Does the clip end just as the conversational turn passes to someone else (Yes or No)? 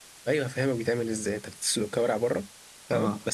No